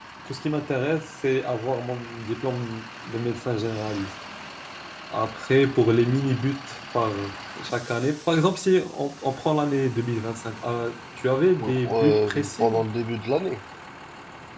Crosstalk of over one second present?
Yes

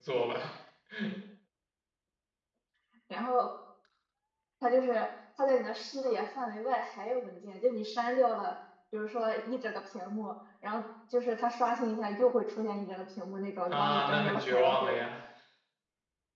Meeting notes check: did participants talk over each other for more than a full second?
Yes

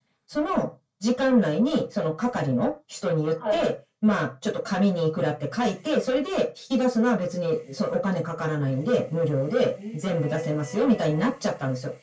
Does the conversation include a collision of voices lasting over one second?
Yes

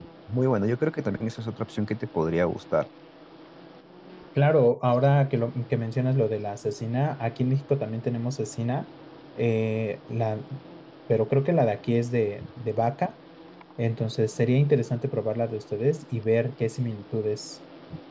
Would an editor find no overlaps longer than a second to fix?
Yes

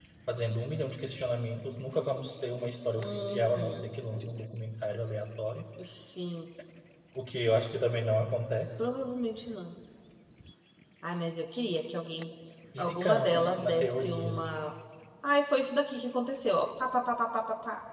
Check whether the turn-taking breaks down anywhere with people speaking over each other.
Yes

